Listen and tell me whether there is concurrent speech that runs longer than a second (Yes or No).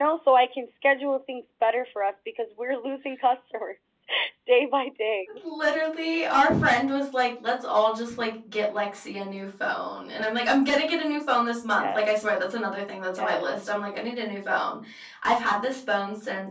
No